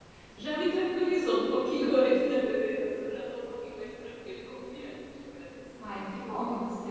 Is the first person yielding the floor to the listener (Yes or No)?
Yes